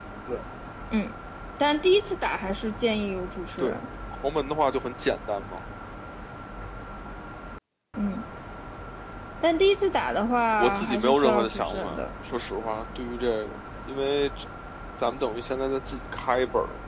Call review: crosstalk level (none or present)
present